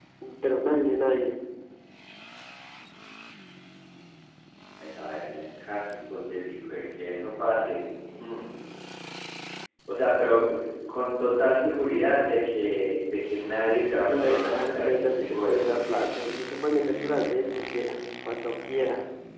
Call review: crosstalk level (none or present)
present